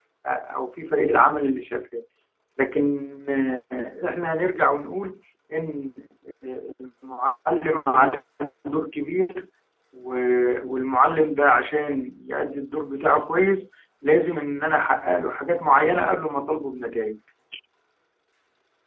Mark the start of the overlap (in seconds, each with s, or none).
none